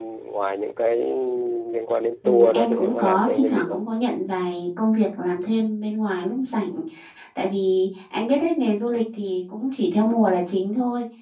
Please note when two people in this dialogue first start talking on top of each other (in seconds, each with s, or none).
2.2 s